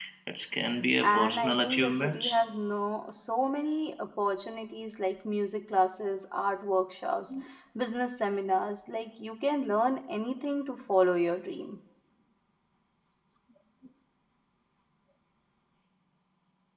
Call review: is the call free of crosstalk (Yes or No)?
No